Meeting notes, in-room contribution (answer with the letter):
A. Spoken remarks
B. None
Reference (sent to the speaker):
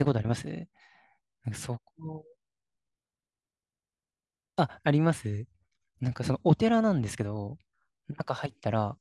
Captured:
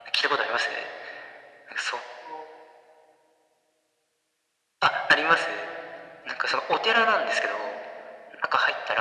B